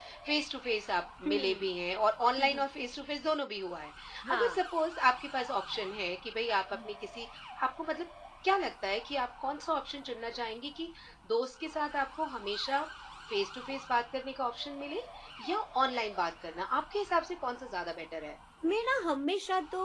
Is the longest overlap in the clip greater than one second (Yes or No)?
No